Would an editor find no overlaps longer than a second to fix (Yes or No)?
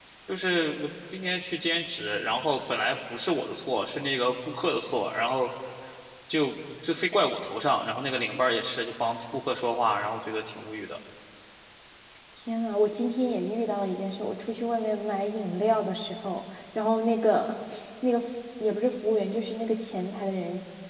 Yes